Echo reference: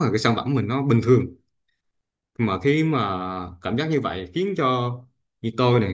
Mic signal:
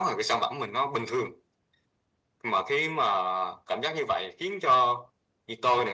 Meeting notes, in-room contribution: none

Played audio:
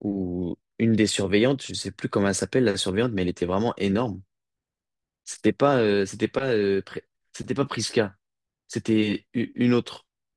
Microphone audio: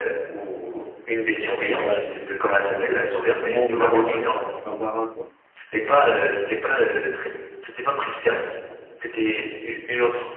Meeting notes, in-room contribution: present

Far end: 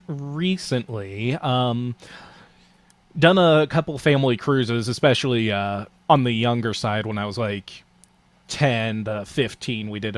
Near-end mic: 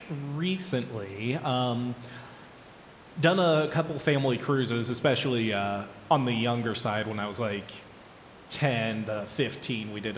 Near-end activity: none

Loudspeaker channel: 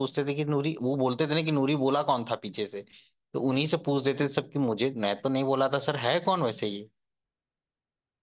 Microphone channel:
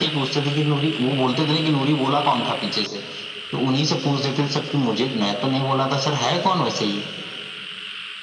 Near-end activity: none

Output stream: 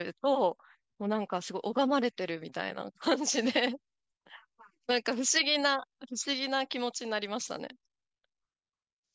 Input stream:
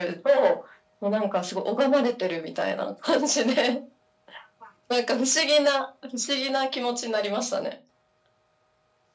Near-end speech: none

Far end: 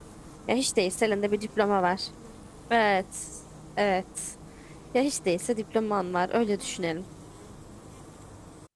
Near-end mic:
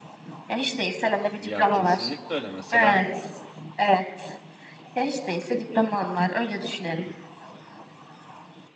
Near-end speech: present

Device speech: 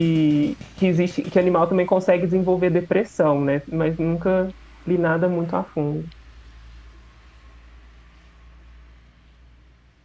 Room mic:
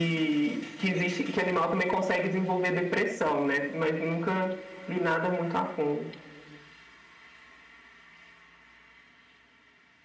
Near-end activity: none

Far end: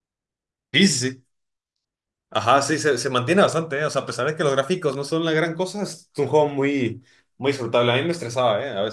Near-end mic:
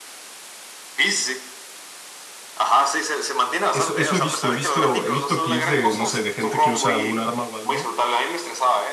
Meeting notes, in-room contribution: present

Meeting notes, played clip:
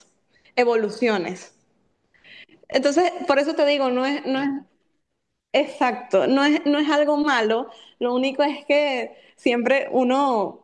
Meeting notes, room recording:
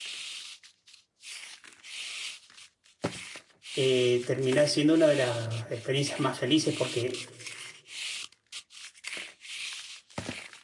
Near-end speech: present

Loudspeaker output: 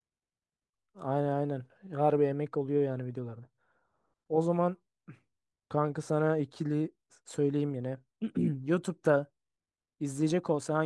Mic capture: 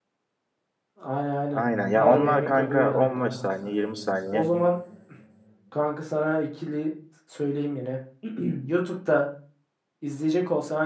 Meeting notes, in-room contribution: present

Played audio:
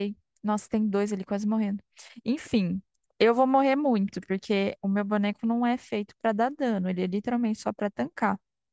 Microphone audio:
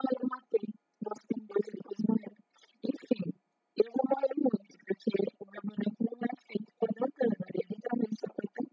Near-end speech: none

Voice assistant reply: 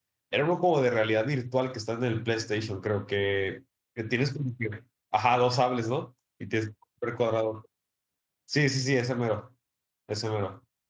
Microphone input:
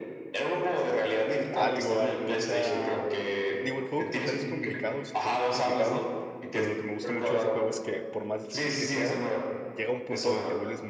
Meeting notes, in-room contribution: present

